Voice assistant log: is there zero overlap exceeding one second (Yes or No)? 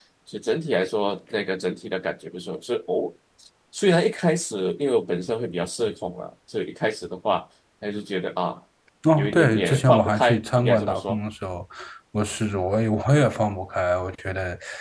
No